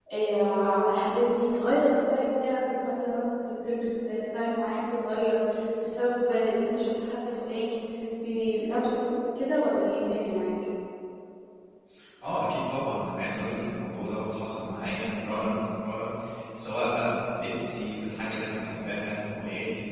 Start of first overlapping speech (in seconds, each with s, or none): none